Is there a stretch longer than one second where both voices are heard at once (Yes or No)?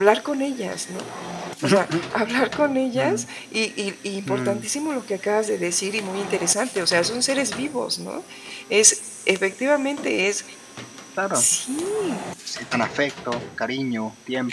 No